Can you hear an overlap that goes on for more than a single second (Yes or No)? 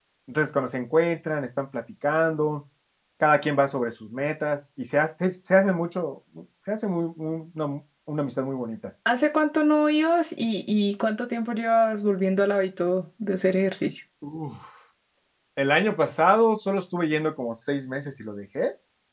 No